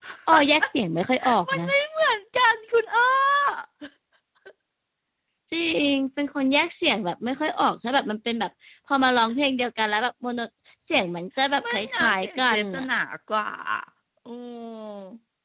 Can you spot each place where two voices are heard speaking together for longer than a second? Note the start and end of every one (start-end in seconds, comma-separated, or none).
11.6-12.9